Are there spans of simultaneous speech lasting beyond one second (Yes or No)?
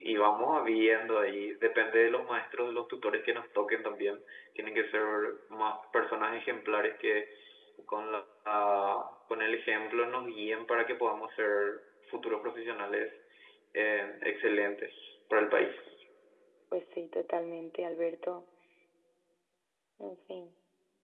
No